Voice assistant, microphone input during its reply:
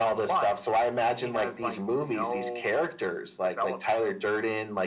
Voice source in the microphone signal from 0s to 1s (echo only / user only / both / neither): echo only